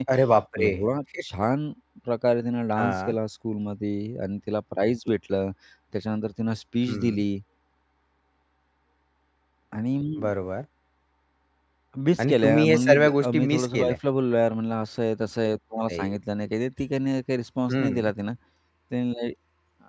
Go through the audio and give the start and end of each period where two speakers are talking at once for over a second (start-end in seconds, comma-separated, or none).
12.2-14.0